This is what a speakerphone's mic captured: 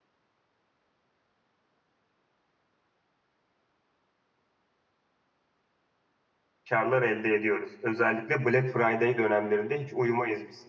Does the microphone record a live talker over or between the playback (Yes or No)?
Yes